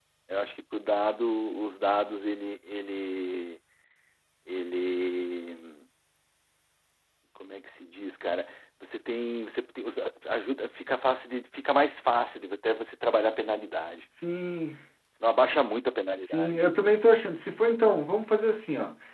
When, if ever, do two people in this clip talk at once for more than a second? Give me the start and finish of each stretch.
none

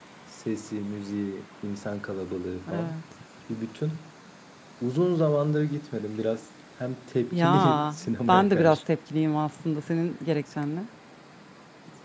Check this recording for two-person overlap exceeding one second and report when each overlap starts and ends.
7.3-8.8

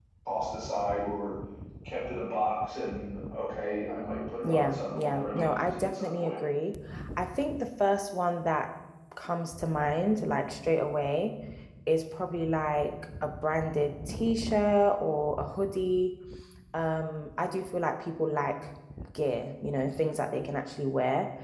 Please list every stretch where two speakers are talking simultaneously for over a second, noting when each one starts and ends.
4.4-6.4

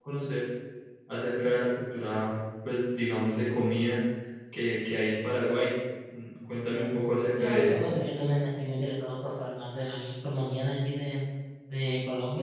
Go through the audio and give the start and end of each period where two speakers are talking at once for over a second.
none

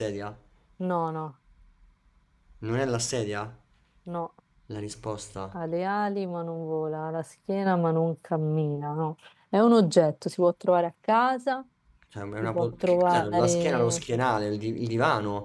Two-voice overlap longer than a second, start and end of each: 12.4-14.0

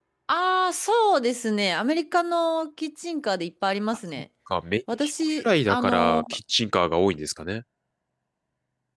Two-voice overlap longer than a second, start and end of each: 4.9-6.2

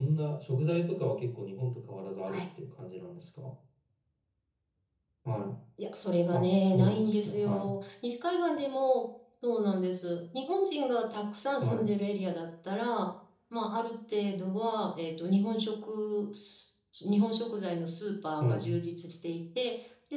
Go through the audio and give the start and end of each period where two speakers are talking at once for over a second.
6.3-7.7

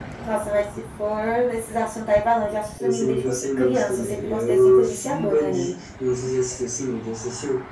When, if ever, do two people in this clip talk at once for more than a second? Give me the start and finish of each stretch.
2.8-5.7

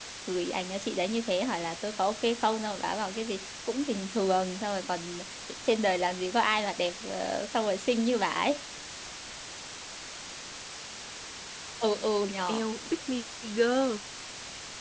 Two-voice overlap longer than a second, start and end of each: none

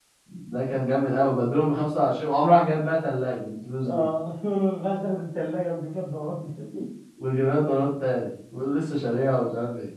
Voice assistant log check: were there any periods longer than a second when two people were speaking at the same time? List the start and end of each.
none

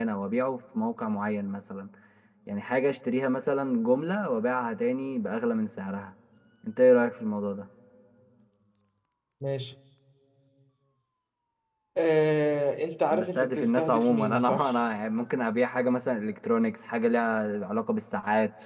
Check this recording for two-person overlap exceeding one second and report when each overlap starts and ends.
13.1-14.7

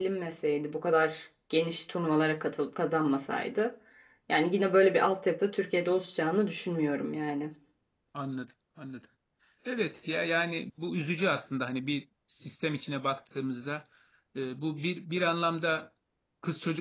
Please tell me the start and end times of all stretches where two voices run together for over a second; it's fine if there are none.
none

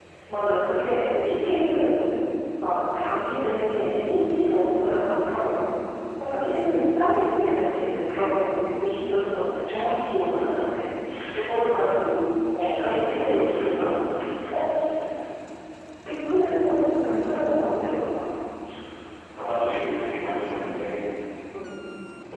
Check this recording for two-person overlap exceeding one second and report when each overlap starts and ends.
12.6-13.8

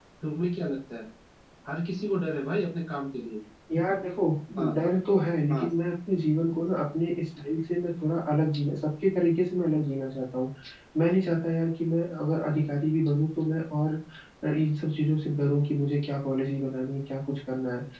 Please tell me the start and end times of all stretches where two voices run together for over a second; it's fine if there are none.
none

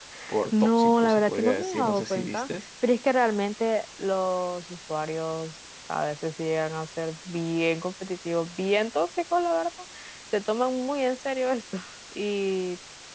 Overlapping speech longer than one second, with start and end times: 0.5-2.5

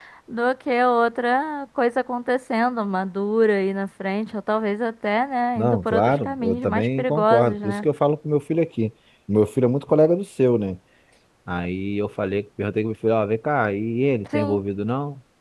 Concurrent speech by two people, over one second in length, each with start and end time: 5.6-7.8

